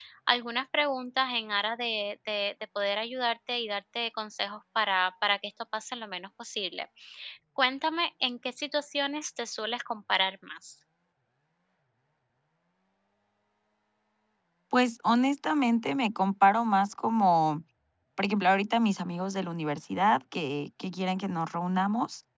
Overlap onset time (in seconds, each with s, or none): none